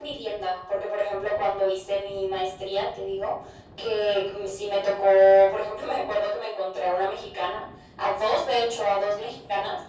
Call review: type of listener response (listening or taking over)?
listening